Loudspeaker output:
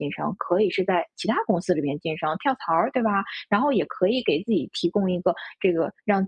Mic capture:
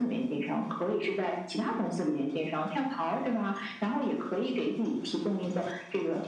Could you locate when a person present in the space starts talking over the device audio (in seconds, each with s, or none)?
none